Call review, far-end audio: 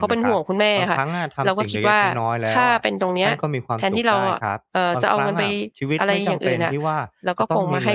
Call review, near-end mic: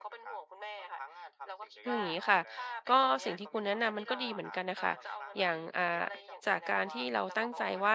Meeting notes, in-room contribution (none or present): present